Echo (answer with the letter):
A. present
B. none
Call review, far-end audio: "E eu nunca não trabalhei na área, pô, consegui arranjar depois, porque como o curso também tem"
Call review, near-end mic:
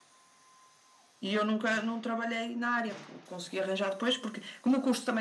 A